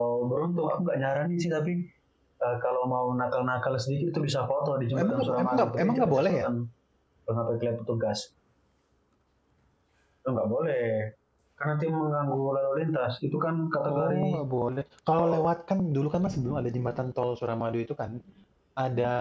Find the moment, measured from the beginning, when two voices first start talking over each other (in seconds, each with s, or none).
5.0 s